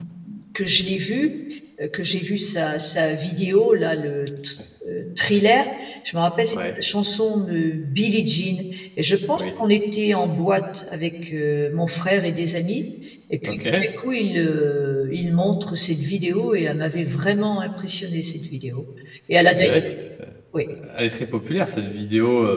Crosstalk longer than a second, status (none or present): none